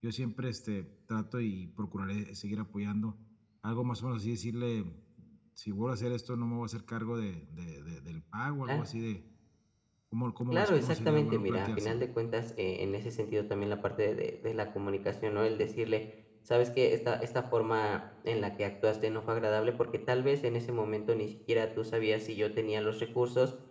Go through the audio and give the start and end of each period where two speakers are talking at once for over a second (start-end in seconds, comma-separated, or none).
10.5-12.1